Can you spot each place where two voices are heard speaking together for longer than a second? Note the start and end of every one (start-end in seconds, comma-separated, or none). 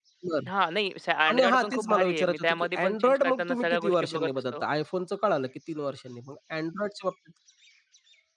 1.3-4.6